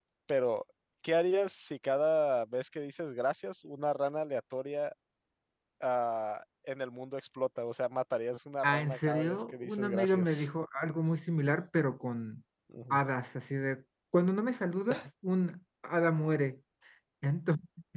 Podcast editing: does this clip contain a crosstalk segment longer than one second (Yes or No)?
Yes